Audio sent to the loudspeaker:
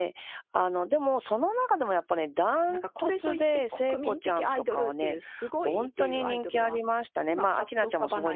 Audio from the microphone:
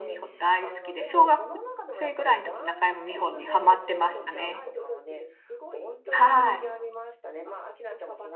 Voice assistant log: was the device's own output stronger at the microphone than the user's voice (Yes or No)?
No